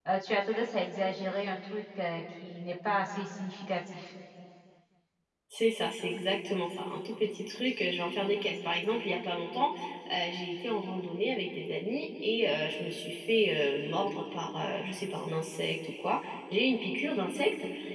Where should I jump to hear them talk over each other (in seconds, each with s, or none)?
none